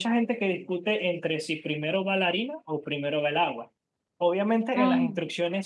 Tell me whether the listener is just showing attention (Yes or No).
Yes